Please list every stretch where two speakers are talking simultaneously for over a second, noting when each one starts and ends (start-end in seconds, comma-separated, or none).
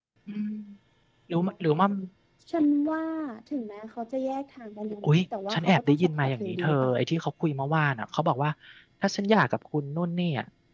5.5-6.9